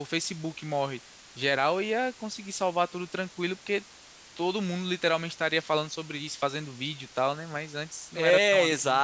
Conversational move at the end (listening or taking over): taking over